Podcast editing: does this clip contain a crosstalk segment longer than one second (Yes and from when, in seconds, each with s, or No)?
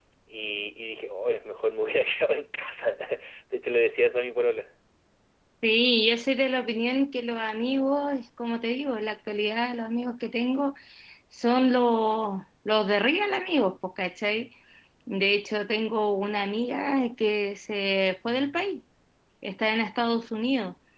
No